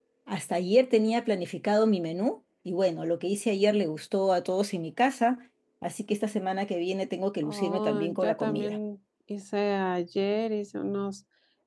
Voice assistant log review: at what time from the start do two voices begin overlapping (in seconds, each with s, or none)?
7.4 s